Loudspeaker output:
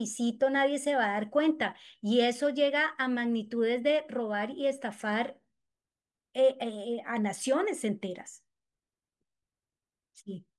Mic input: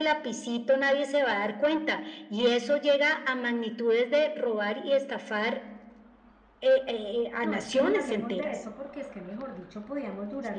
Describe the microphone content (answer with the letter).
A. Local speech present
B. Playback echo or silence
A